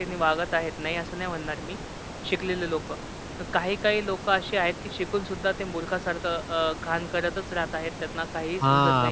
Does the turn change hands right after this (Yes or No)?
Yes